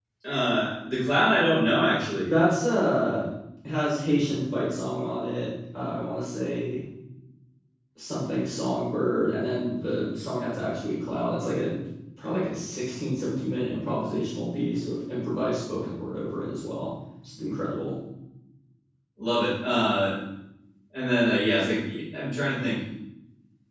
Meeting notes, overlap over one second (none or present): none